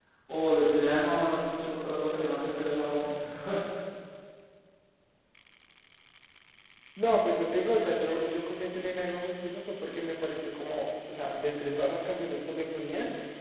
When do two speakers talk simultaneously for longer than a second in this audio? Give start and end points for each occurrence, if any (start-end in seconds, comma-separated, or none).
none